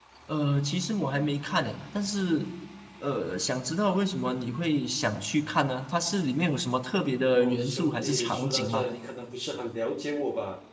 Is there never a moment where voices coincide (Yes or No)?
No